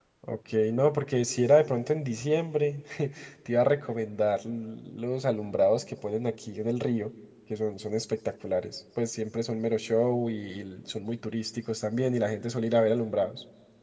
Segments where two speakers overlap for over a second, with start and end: none

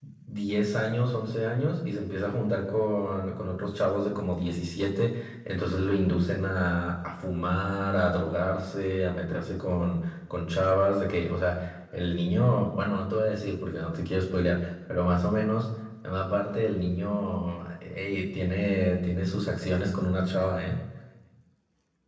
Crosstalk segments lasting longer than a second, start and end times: none

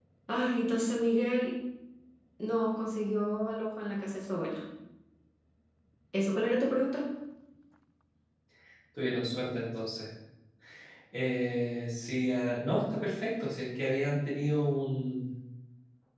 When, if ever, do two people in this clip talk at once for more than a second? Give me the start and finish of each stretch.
none

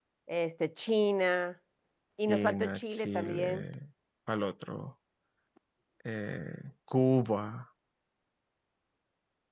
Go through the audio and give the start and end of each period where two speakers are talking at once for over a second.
2.3-3.6

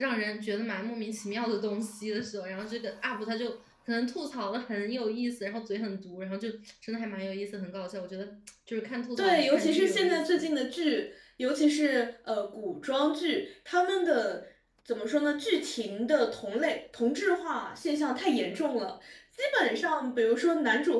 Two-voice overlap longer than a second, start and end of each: 9.2-10.5

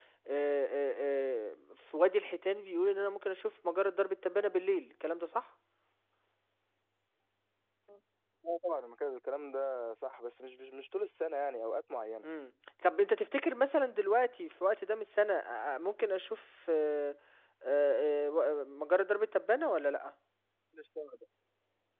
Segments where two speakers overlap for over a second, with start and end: none

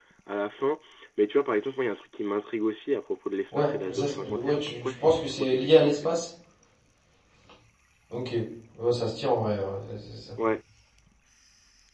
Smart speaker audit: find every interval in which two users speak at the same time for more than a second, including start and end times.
3.6-6.1

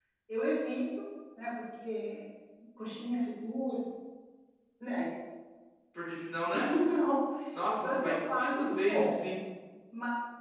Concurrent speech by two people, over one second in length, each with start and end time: 7.8-9.3

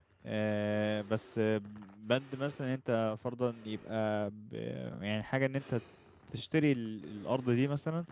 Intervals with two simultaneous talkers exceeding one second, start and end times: none

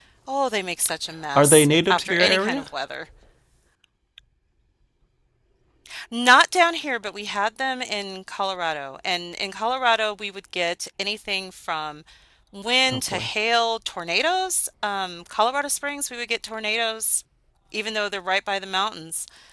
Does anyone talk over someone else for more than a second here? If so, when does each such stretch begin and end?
1.4-2.6

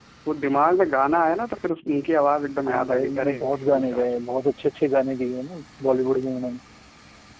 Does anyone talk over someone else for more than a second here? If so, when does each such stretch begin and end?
2.7-4.1

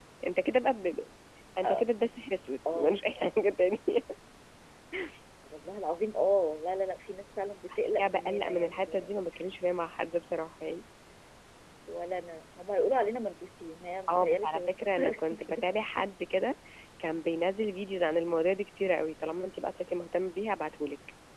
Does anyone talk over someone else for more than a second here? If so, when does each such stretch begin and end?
7.8-9.1, 14.1-15.6

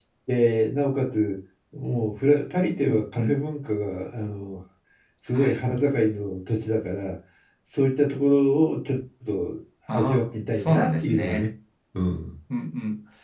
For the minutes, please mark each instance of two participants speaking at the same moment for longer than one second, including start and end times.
9.9-11.5

